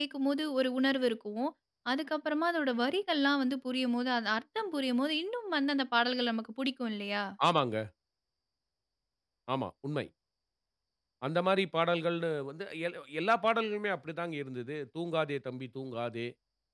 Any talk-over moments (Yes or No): No